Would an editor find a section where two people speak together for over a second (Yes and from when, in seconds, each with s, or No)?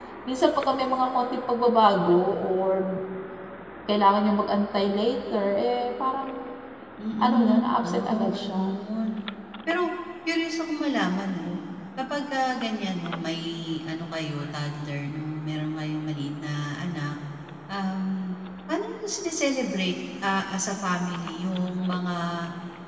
Yes, from 7.2 s